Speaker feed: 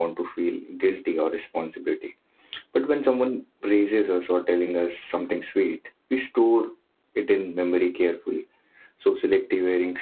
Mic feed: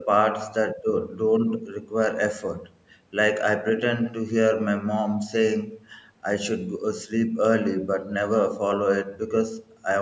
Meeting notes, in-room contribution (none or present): present